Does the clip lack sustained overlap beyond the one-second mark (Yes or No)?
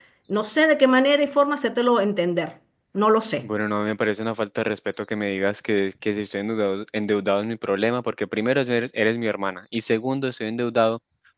Yes